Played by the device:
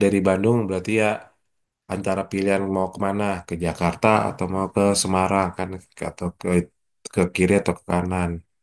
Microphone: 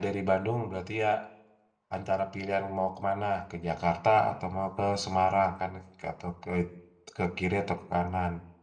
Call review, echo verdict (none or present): present